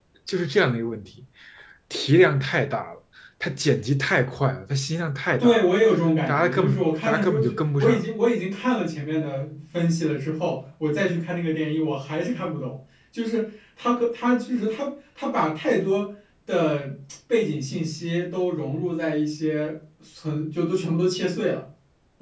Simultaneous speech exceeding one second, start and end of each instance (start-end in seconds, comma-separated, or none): 6.3-8.0